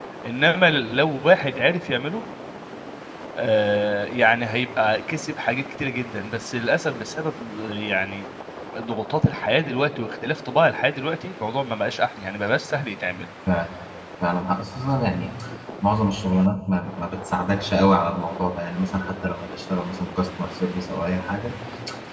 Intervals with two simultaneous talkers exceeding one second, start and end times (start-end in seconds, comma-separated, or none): none